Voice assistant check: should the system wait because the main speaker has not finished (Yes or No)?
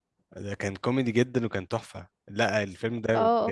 Yes